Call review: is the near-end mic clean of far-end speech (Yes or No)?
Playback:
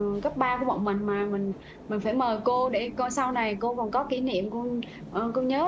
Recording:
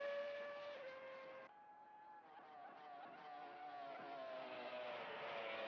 Yes